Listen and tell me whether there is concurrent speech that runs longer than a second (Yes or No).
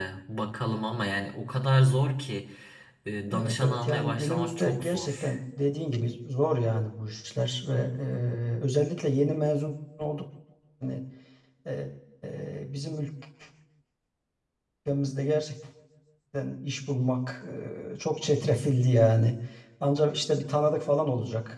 Yes